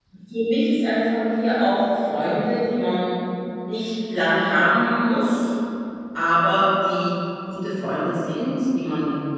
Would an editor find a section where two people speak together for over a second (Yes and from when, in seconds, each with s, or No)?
No